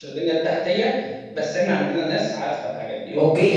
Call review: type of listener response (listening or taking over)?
taking over